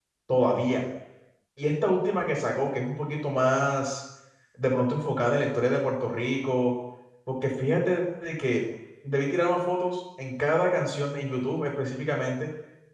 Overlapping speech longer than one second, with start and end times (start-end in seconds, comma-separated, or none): none